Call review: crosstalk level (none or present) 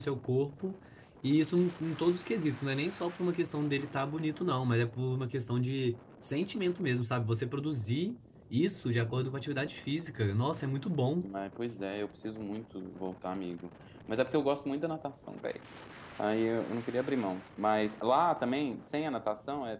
none